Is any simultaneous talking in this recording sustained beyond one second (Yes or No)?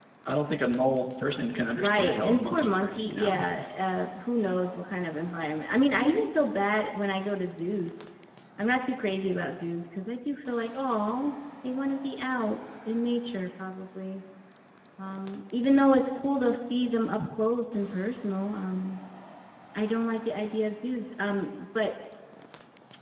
Yes